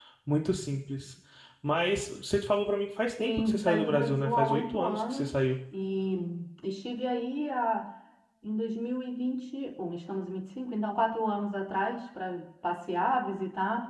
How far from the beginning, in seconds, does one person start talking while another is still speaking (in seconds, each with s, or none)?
3.2 s